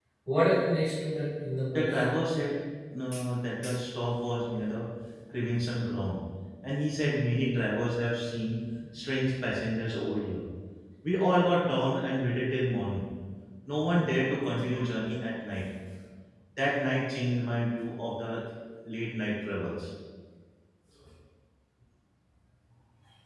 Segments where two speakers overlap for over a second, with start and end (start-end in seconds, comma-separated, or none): none